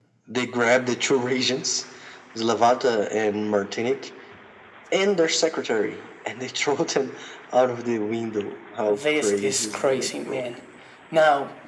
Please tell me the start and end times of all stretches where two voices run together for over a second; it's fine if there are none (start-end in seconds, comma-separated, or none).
8.9-10.5